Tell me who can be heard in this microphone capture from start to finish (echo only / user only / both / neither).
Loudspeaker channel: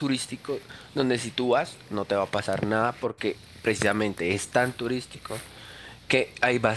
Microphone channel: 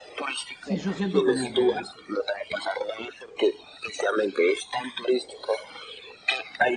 both